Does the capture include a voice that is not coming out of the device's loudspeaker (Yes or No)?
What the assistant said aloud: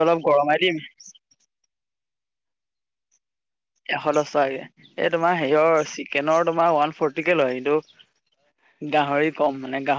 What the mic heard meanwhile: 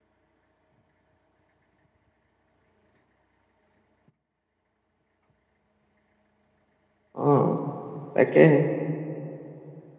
Yes